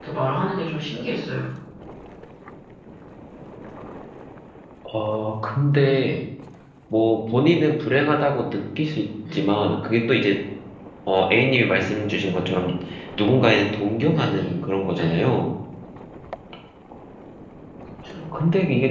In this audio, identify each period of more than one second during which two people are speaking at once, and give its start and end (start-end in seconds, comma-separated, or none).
none